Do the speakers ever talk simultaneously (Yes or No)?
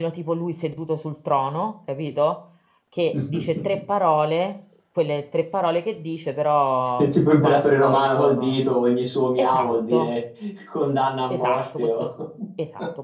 Yes